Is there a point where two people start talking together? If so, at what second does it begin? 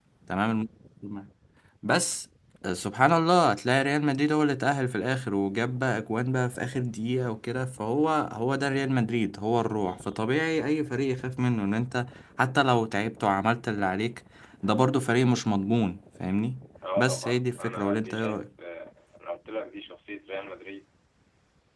17.0 s

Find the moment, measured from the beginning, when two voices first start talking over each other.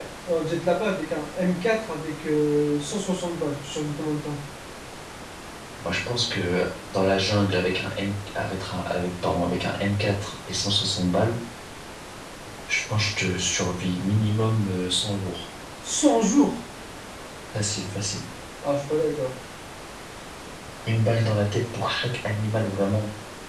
none

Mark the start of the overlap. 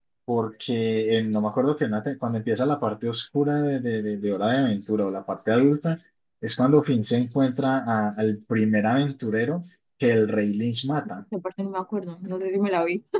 none

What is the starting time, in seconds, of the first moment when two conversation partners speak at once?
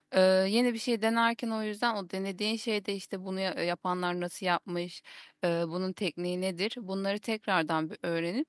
none

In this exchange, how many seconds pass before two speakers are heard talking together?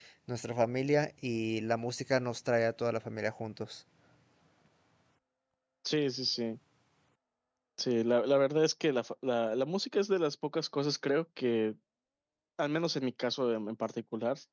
none

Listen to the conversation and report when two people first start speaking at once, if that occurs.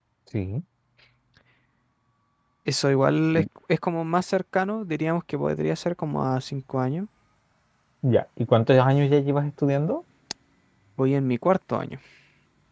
none

